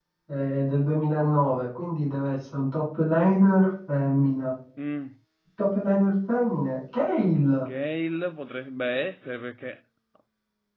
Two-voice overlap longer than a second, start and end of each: none

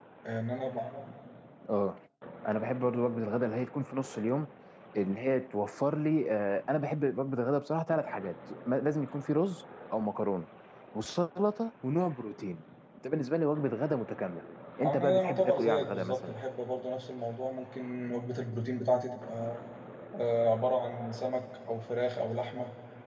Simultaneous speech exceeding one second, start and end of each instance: 14.8-16.3

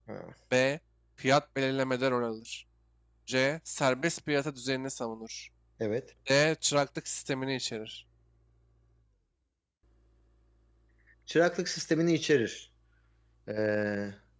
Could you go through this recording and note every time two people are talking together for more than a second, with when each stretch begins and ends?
none

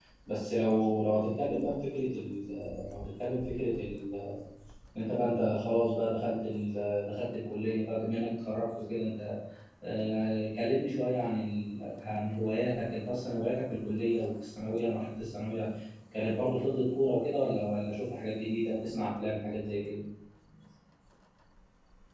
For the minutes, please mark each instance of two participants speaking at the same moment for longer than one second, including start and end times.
none

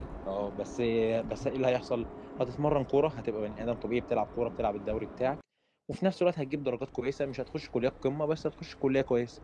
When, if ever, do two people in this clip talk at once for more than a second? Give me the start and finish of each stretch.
none

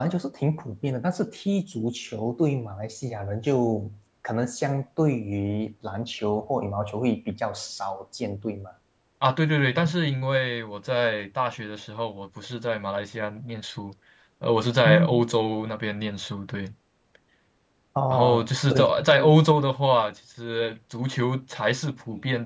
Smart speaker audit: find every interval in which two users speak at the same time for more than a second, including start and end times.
18.1-19.3

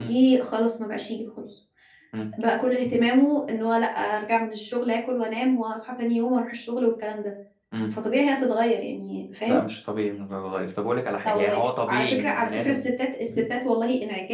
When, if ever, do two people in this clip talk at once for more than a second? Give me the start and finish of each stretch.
11.2-12.8

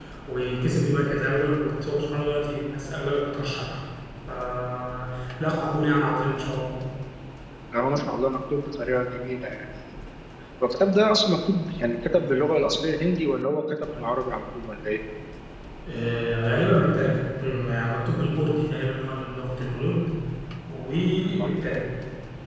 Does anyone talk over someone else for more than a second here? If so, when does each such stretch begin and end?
none

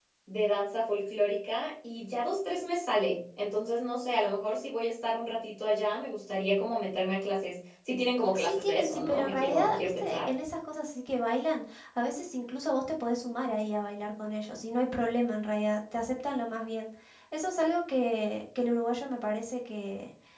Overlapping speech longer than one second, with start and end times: 8.3-10.3

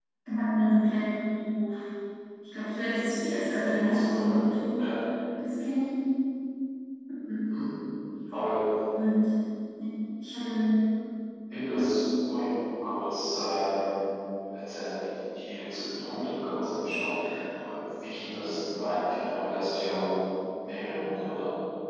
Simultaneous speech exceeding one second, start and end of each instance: none

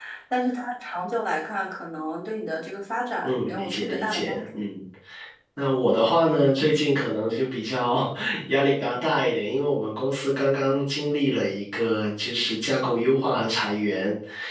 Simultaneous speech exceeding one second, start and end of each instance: 3.2-4.6

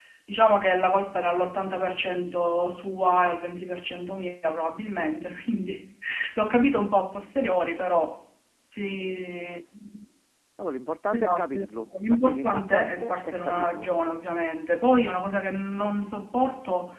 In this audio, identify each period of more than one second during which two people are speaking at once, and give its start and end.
11.1-13.9

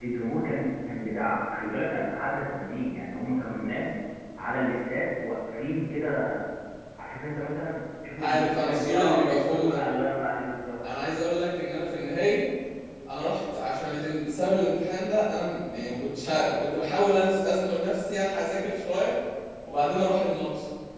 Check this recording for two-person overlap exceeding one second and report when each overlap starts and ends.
8.2-9.8

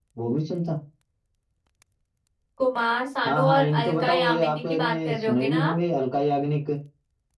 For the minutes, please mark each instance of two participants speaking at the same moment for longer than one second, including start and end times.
3.2-5.7

